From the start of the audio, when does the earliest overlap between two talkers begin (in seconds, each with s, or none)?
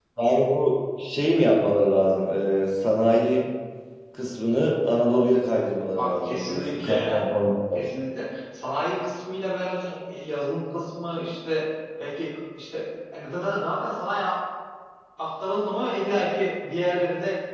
5.9 s